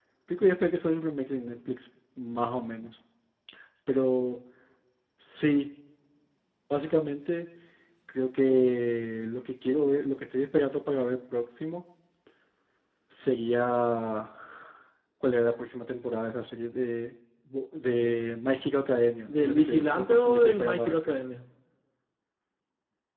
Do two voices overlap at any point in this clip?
Yes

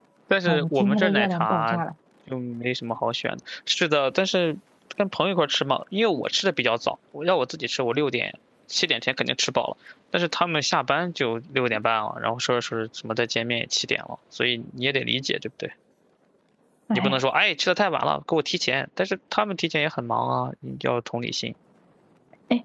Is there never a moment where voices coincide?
No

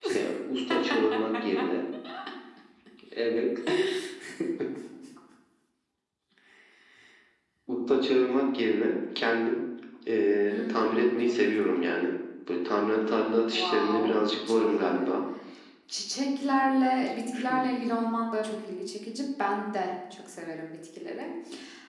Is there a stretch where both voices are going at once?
Yes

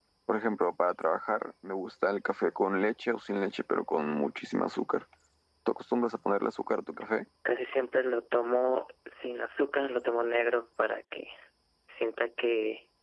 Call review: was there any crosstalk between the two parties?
No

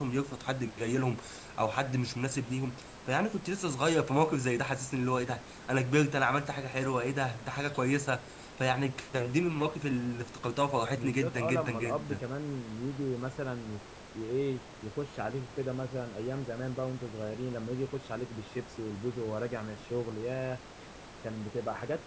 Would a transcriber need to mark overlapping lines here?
Yes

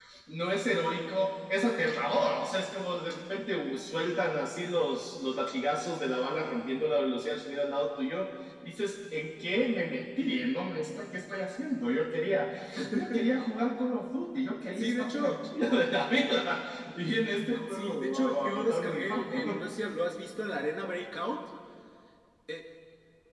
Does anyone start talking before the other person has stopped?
Yes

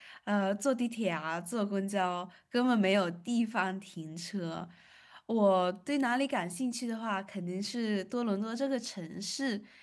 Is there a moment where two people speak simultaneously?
No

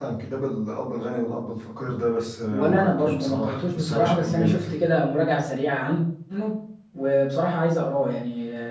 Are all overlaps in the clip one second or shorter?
No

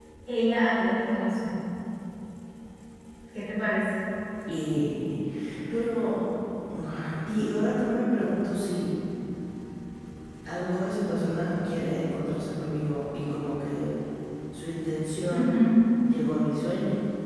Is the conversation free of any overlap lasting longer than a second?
Yes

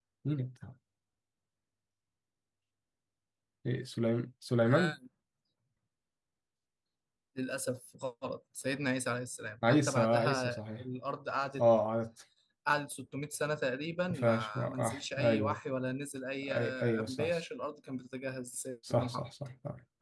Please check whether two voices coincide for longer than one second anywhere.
Yes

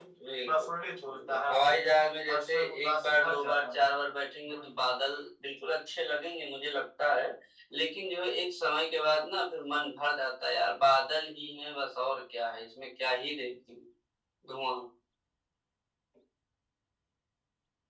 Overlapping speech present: Yes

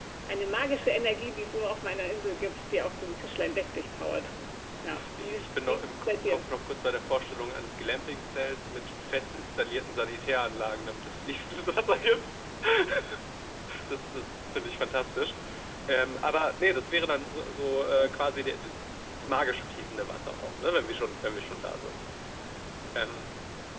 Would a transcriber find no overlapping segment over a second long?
No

